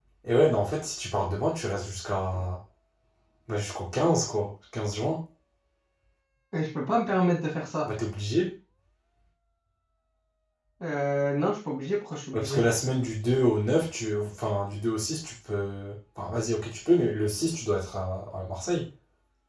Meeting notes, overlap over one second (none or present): none